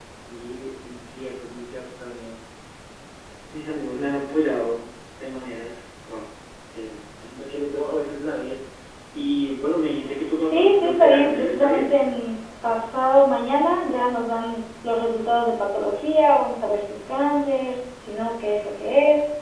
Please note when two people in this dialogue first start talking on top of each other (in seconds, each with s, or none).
10.5 s